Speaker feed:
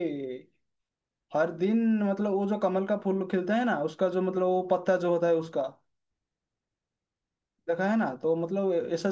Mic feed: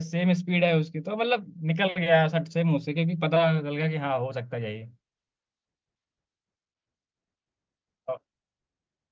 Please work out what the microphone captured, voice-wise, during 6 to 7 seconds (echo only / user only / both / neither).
neither